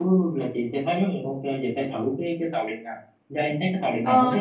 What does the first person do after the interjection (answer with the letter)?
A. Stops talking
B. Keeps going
A